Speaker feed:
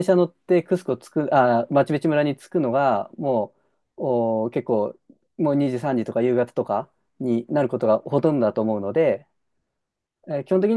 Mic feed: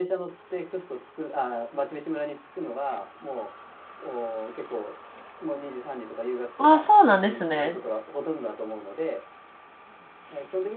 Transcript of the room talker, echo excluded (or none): あ、そうなんですね。